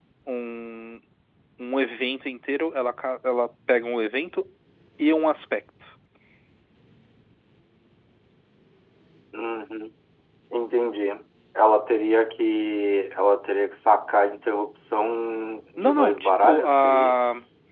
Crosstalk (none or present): present